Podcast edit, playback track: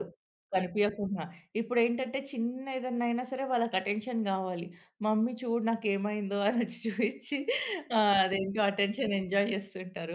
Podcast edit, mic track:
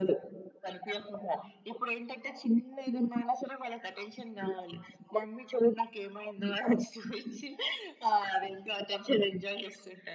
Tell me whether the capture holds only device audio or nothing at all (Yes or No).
Yes